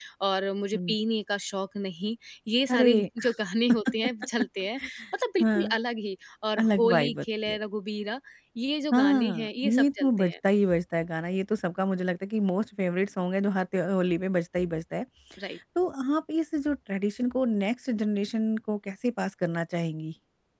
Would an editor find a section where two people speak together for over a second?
Yes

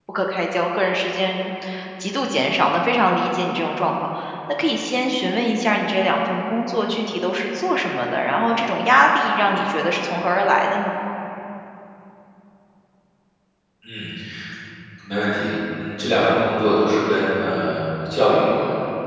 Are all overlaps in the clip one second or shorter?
Yes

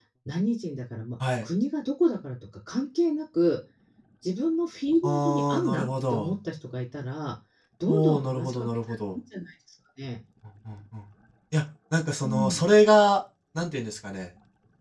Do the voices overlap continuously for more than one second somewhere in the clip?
Yes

